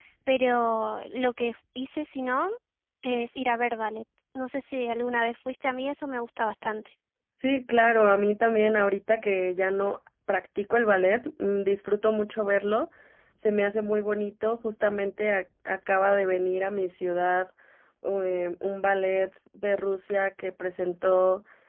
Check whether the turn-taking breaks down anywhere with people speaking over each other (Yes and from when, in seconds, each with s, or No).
No